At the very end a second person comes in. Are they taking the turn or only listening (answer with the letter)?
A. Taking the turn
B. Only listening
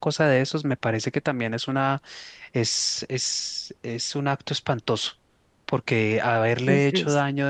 B